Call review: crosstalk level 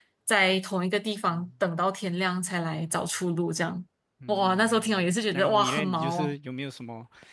present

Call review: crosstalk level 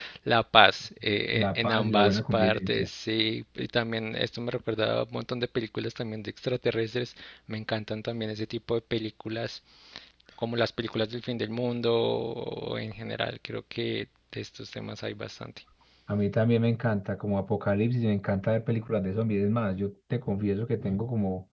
present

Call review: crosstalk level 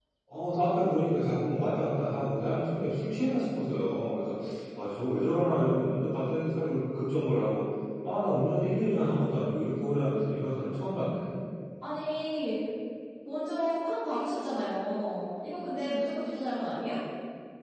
none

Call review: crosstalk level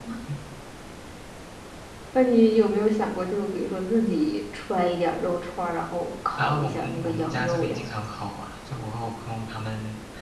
present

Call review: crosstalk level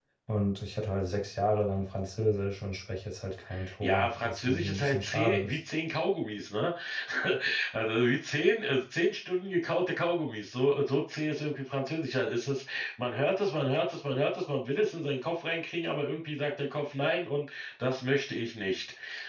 present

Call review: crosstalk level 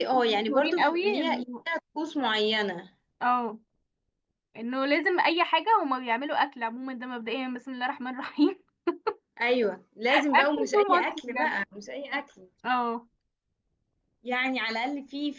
present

